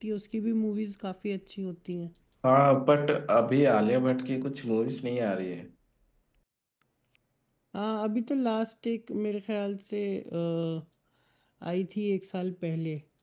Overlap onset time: none

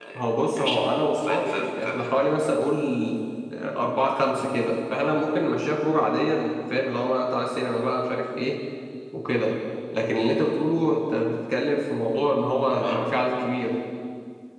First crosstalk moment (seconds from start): 0.6 s

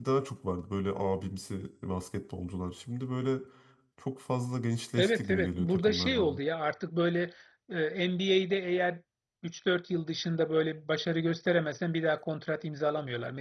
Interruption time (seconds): 5.0 s

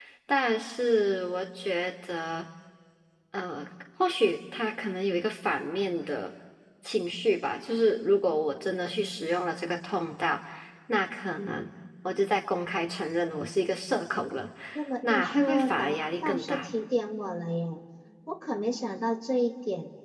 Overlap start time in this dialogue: 15.0 s

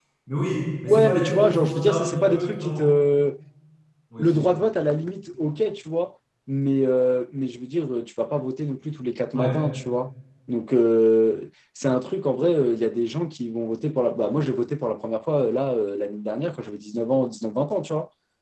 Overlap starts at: 0.9 s

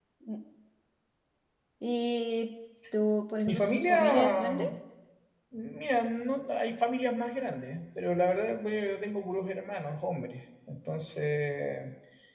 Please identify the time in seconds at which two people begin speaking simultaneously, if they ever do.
3.5 s

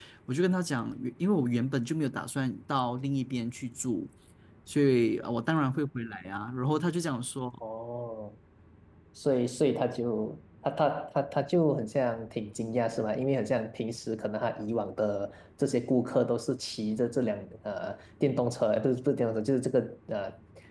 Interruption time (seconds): none

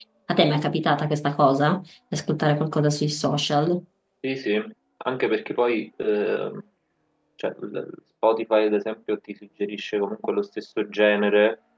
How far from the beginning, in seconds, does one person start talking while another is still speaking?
none

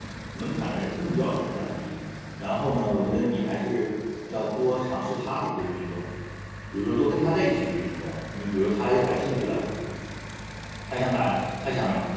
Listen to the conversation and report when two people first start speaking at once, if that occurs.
none

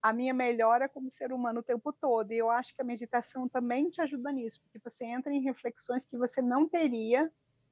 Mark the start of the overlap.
none

